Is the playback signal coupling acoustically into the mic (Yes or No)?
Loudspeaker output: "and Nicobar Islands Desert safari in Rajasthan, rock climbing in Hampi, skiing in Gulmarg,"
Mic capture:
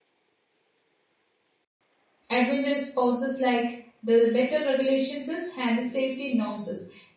No